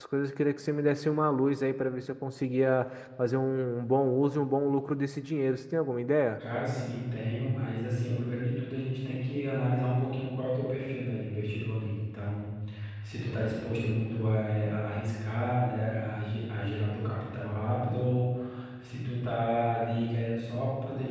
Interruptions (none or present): none